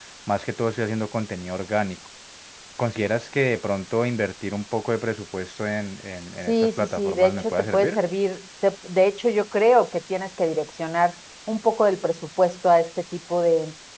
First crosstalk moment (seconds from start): 6.5 s

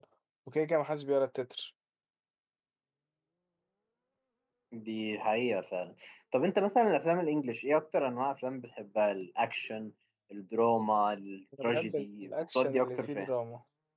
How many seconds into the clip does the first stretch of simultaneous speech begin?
11.5 s

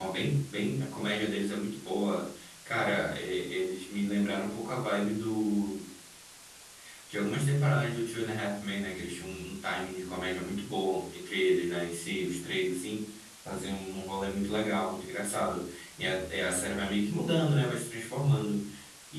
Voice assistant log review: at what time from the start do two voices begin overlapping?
none

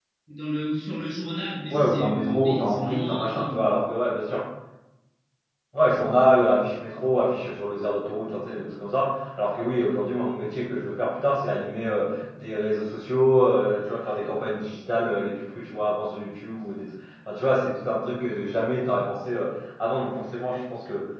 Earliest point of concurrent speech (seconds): 1.7 s

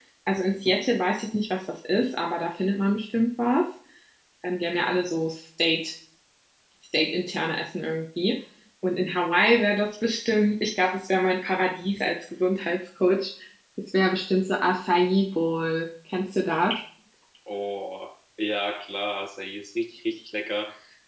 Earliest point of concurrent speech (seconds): none

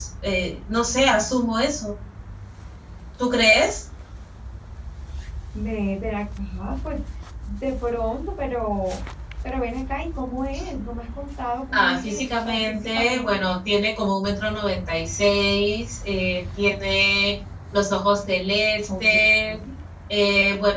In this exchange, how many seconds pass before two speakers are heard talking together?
11.7 s

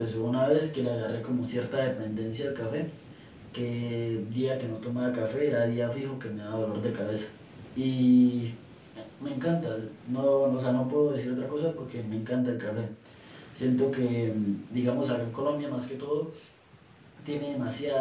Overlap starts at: none

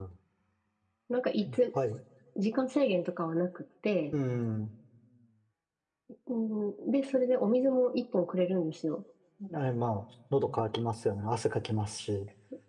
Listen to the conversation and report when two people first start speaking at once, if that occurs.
none

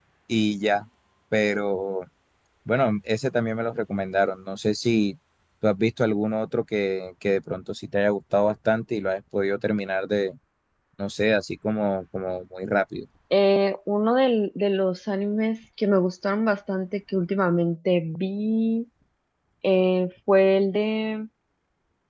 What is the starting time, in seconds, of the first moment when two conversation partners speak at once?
none

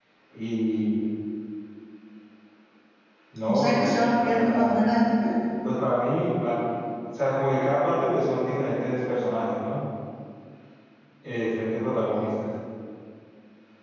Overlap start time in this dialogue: 3.5 s

